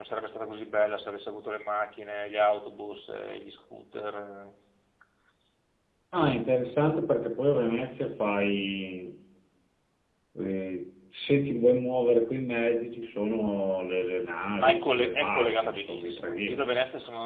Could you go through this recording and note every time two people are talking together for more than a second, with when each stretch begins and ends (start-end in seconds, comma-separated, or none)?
14.6-16.6